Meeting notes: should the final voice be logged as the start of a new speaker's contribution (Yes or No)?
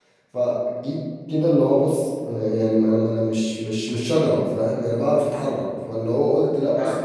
No